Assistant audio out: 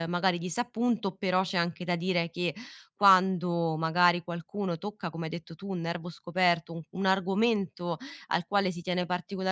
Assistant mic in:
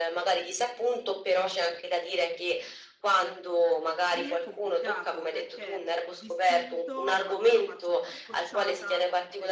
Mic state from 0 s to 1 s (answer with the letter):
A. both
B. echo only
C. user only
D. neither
B